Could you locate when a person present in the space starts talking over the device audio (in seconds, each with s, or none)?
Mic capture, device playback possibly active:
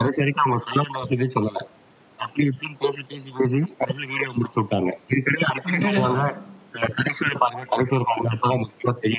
5.7 s